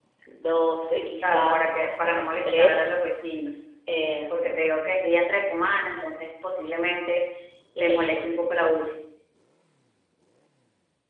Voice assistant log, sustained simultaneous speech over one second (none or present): present